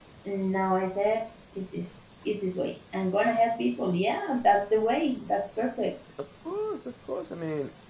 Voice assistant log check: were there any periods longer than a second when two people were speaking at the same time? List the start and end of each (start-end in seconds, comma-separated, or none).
none